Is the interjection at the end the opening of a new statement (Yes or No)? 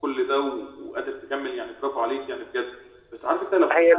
No